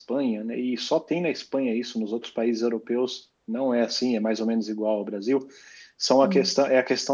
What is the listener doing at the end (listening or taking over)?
listening